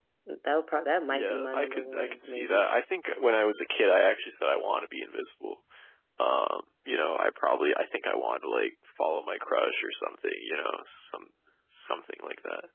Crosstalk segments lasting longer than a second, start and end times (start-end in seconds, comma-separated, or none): 1.1-2.7